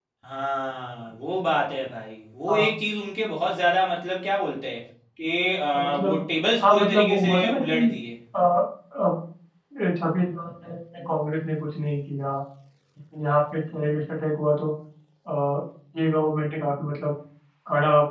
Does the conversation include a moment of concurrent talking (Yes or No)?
Yes